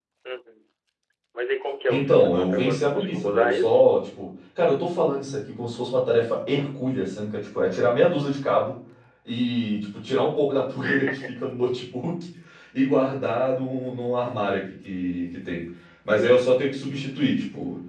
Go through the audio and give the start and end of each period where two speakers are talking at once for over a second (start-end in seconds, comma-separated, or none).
1.9-3.8